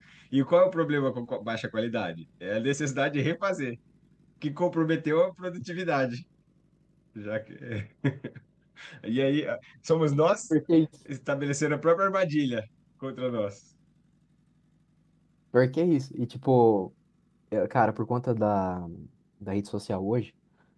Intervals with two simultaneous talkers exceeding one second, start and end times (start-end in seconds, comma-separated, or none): none